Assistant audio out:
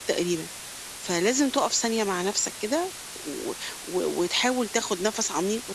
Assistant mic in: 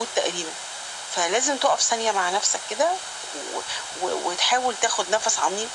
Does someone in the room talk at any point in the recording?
No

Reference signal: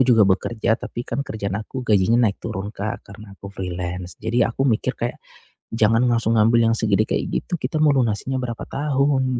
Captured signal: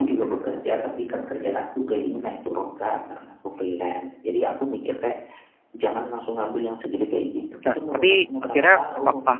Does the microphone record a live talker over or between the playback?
Yes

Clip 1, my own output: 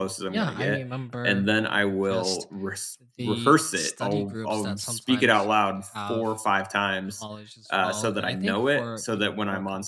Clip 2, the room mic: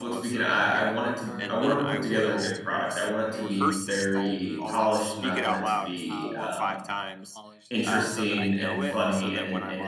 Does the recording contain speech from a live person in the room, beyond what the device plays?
Yes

